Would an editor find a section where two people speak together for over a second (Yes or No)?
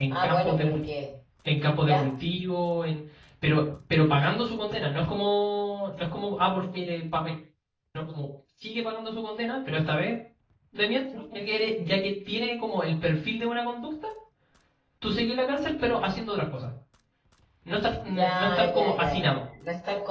Yes